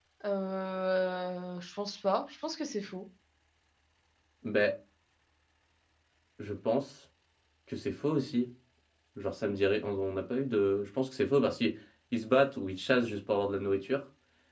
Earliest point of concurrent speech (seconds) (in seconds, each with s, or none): none